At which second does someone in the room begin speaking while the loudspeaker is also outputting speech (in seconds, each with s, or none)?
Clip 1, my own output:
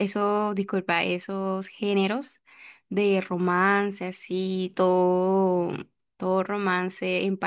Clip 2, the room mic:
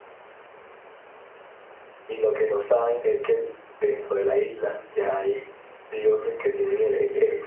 2.0 s